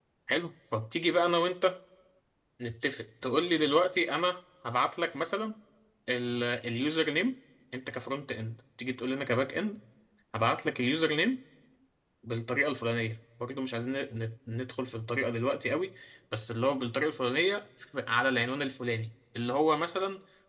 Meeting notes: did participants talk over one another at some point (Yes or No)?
No